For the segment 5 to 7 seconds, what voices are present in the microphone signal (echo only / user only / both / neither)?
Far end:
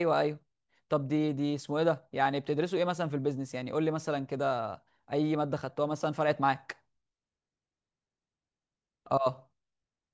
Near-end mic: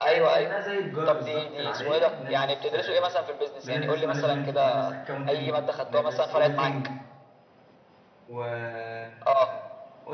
both